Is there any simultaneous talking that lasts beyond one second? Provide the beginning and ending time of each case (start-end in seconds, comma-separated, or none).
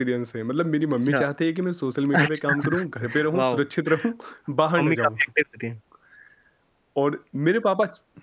2.1-3.6